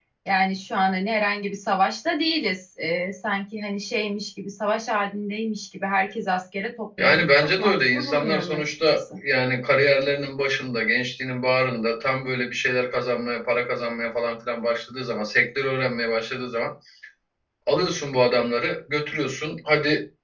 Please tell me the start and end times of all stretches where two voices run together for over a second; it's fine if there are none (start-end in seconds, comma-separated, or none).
7.0-9.2